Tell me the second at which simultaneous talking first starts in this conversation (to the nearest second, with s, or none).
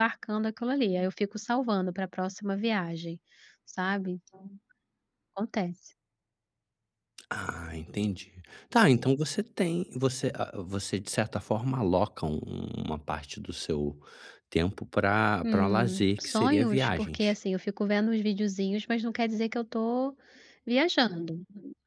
15 s